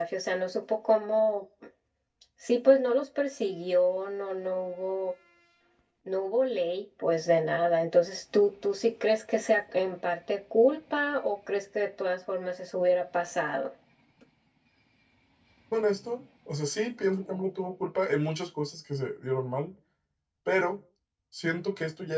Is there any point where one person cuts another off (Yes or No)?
No